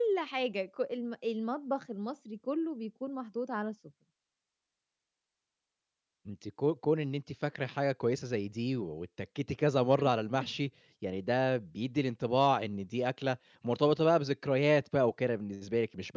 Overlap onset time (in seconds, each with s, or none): none